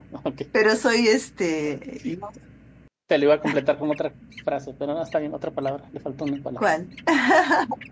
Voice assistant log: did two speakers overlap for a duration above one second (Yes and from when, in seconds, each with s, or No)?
No